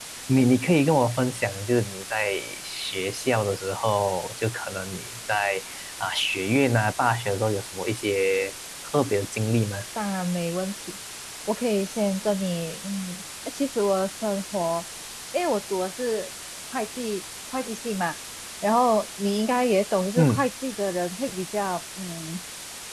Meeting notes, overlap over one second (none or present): none